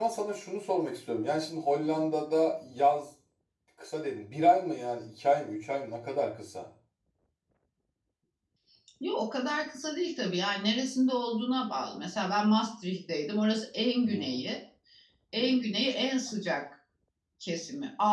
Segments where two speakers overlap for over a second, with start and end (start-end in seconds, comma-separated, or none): none